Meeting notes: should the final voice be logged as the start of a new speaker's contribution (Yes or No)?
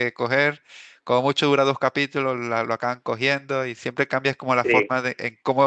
No